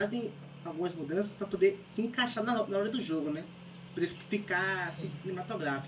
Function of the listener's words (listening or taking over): listening